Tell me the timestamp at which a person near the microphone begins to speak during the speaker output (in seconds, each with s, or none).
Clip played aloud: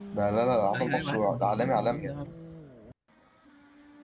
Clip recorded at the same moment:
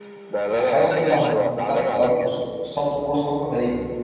0.5 s